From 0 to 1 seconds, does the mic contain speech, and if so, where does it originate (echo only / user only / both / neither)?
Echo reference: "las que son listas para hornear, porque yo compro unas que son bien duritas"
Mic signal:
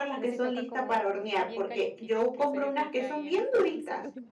both